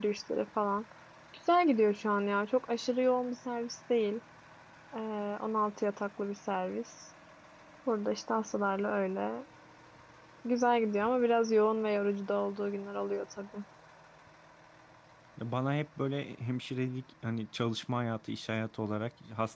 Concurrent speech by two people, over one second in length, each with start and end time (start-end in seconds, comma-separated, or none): none